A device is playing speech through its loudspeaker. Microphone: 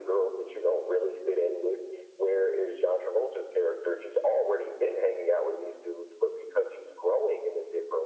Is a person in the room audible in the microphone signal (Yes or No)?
No